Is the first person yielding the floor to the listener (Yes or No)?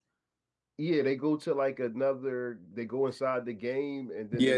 Yes